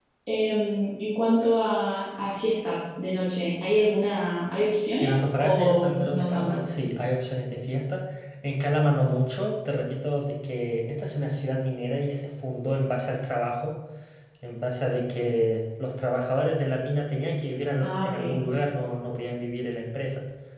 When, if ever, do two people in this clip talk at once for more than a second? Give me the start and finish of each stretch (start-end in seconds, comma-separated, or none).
5.0-6.6